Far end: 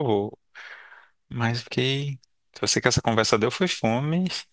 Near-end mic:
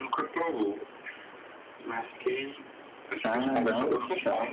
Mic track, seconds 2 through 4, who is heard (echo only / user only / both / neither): both